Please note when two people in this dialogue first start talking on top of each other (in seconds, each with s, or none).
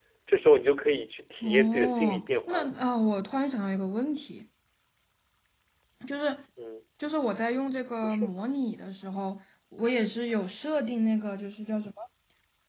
1.4 s